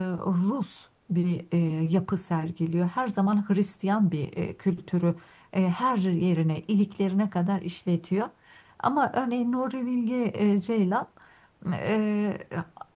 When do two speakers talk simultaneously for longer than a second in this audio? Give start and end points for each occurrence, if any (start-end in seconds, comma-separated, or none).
none